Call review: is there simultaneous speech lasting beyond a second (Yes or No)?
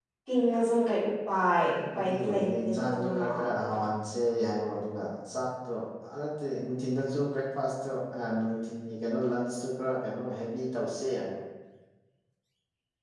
Yes